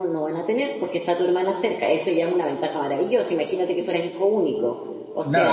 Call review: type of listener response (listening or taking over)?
taking over